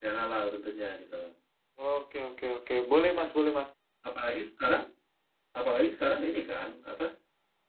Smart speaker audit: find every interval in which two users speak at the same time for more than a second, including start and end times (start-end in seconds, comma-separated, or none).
none